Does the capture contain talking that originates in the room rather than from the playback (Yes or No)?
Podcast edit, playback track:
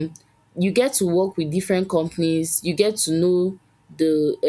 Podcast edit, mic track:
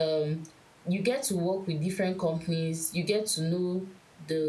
No